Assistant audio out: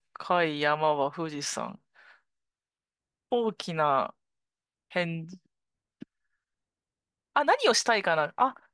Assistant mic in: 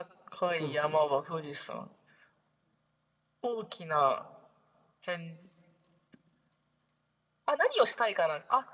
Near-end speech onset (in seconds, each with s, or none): 0.5 s